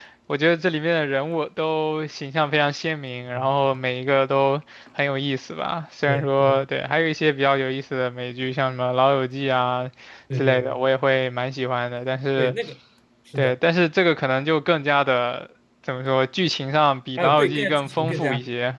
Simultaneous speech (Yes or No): Yes